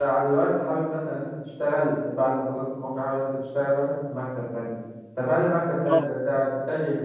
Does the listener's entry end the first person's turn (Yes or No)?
No